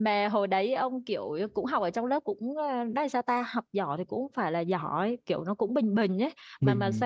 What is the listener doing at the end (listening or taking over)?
taking over